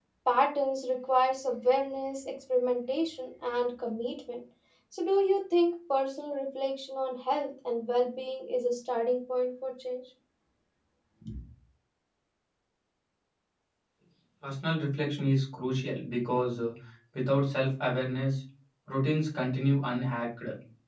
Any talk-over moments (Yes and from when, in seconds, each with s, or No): No